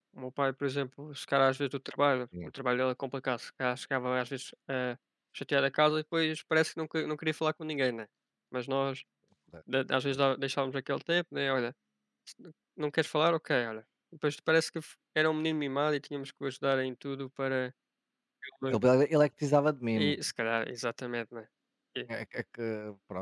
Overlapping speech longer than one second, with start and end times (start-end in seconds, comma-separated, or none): none